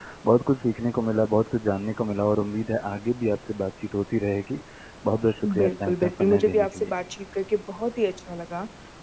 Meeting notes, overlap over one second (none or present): present